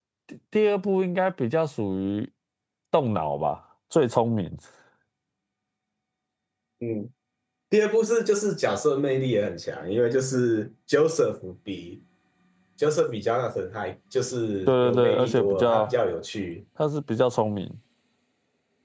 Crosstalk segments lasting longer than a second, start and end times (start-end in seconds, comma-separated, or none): 14.7-15.9